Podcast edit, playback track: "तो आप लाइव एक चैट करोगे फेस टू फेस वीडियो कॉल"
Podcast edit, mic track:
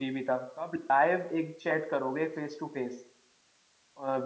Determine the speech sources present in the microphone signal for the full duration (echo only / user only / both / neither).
echo only